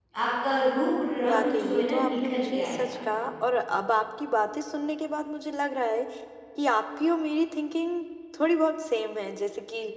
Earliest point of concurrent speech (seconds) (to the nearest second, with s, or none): 1 s